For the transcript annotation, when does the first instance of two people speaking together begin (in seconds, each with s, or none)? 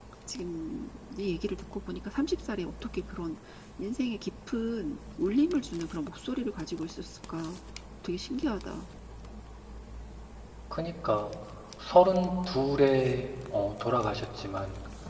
none